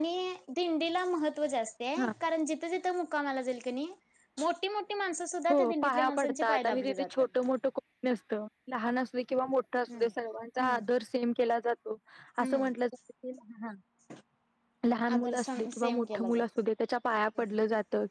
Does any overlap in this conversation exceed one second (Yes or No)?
Yes